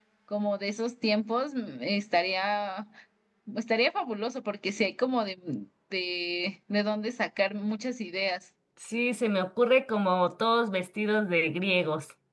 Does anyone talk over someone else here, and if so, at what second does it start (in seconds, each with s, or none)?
none